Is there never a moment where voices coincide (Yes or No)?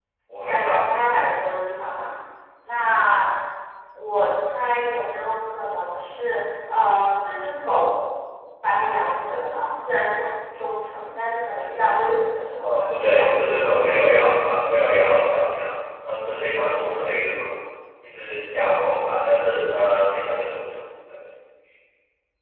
No